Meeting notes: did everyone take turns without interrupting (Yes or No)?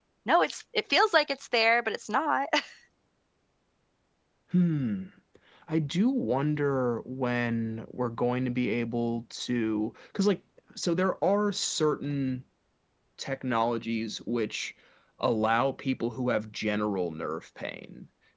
Yes